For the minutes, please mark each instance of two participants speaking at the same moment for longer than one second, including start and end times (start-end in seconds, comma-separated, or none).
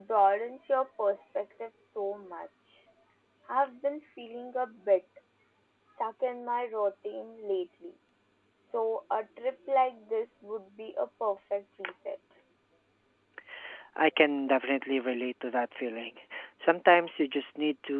none